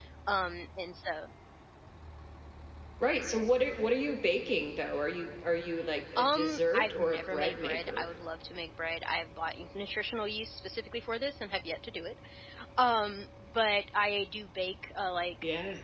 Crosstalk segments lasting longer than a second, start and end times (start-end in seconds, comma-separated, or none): 6.2-8.1